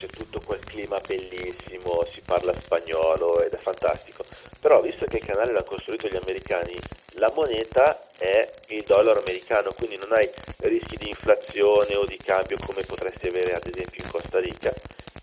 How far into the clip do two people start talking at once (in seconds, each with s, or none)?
none